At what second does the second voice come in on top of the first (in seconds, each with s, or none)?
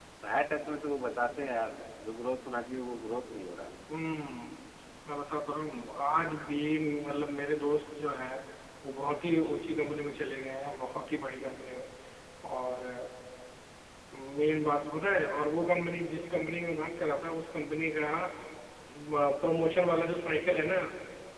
none